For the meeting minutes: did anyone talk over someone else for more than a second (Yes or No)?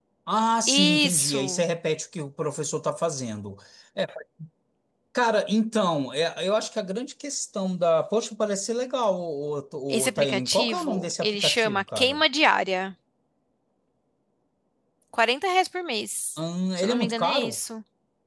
Yes